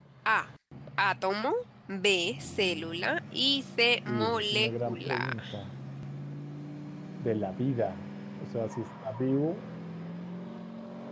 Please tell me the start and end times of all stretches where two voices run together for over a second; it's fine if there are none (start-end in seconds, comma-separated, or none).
4.1-5.3